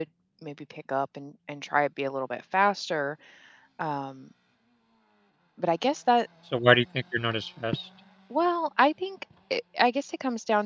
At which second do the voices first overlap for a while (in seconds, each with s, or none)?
none